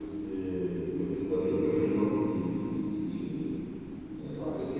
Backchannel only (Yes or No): Yes